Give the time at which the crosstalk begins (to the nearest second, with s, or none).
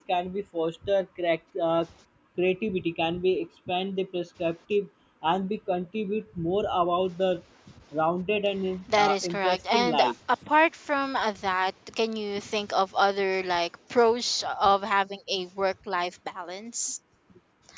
9 s